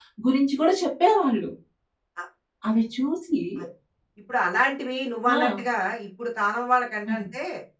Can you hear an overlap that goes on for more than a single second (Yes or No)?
No